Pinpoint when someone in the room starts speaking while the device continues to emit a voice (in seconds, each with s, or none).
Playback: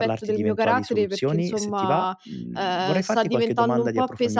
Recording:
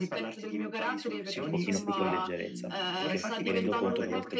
1.3 s